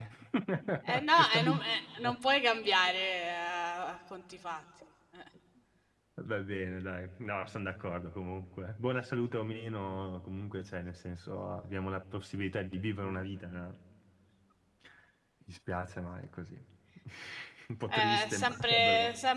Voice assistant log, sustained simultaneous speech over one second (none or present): present